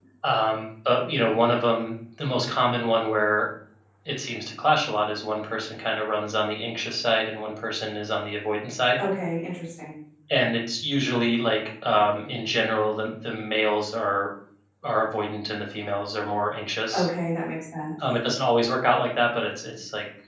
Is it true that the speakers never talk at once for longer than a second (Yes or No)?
Yes